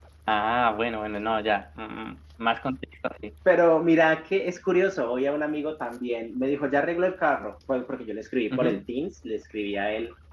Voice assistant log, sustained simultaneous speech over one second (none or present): none